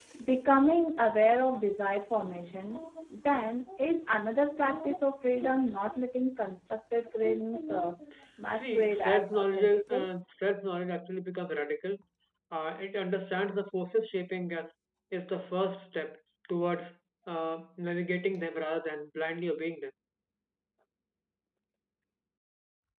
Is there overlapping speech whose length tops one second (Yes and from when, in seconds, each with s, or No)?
Yes, from 8.6 s